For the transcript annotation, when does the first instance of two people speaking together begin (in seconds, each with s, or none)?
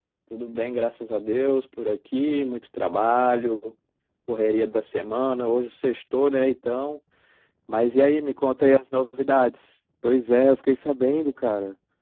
none